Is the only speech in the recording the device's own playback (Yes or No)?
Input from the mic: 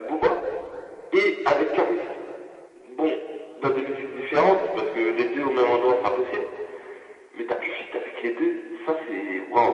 Yes